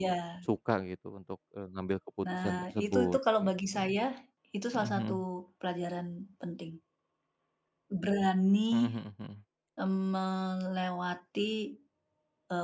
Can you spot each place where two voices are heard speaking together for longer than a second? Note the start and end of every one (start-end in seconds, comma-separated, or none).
2.4-3.8